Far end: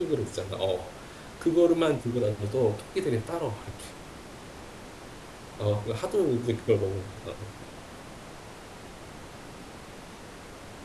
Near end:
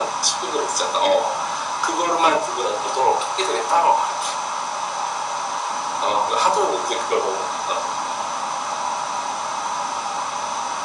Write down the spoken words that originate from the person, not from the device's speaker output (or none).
none